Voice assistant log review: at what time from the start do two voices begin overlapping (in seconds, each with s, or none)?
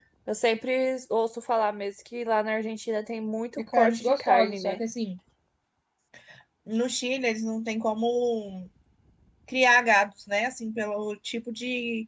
3.6 s